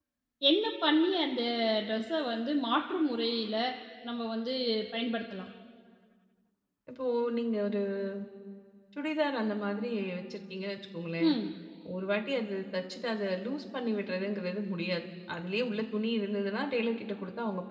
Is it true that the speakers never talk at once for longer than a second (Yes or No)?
Yes